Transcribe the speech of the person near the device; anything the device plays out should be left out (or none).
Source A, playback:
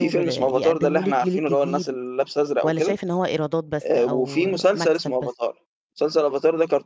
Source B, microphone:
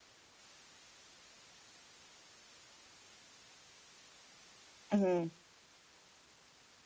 اهم.